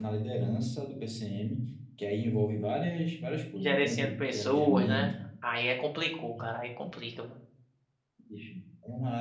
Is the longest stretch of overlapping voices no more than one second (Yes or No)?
No